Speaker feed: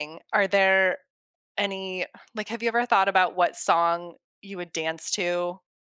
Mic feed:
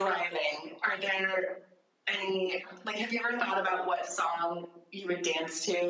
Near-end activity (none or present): none